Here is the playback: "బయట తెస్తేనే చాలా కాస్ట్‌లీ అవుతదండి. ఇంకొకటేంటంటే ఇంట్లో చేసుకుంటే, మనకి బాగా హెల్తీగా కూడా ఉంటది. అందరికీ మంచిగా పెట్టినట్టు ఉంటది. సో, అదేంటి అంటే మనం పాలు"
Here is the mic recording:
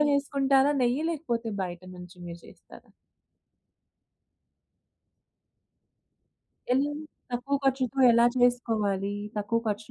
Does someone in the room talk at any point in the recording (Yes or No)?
Yes